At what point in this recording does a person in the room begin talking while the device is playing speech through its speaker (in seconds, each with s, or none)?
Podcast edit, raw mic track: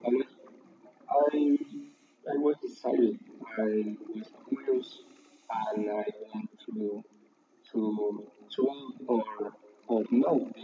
none